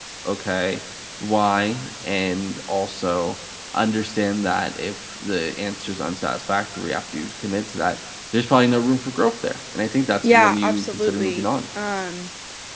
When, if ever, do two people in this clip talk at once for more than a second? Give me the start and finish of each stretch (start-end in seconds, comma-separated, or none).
10.2-11.5